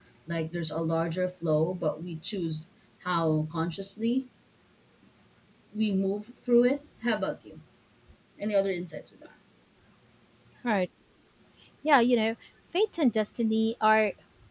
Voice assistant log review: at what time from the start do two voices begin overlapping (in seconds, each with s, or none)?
none